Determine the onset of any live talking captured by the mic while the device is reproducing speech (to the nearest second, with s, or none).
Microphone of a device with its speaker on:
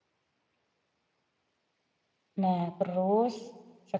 2 s